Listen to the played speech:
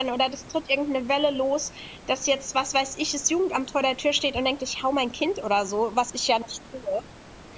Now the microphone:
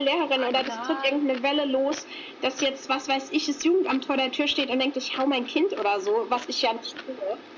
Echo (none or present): present